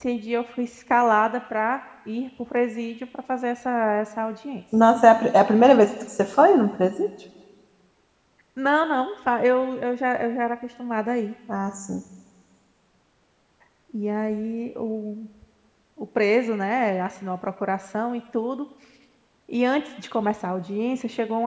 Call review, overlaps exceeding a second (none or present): none